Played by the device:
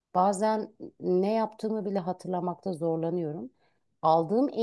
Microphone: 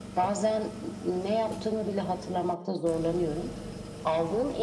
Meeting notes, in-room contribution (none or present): none